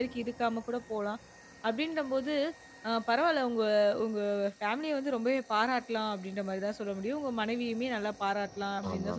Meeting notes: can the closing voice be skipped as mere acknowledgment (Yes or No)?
Yes